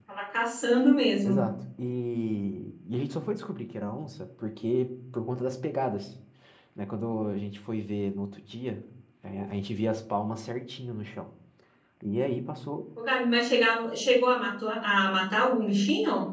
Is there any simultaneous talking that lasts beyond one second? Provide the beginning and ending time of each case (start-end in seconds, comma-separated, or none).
none